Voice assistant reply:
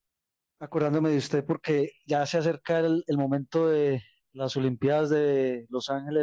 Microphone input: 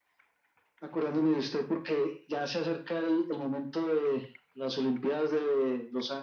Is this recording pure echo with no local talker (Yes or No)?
Yes